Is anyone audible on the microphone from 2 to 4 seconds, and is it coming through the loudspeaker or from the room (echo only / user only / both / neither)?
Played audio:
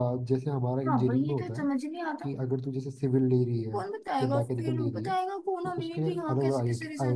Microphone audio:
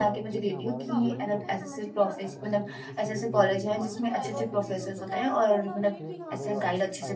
both